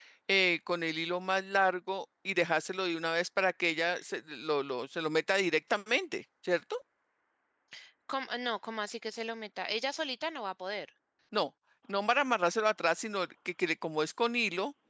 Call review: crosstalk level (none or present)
none